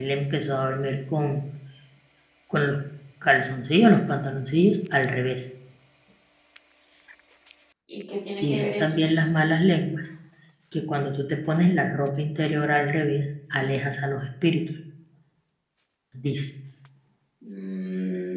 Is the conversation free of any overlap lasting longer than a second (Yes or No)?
Yes